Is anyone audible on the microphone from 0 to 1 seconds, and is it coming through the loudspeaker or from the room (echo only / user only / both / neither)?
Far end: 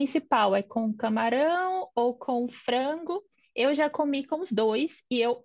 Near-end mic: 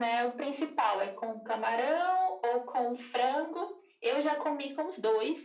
echo only